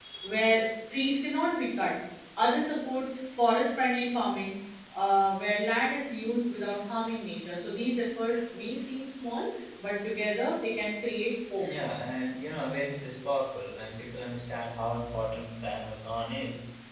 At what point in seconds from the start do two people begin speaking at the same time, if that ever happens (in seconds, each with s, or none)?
none